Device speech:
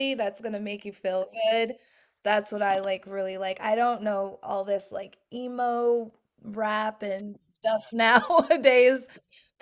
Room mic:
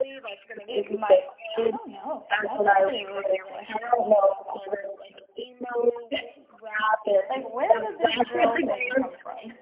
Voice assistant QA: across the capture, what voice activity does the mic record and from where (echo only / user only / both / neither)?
both